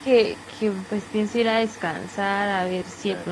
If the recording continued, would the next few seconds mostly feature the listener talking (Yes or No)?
No